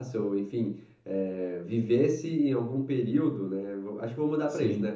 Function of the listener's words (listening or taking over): listening